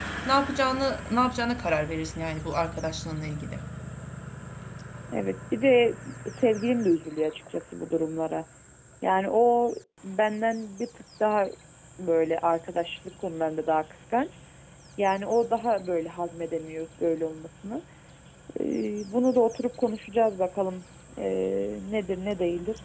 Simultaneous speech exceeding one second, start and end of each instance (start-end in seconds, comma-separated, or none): none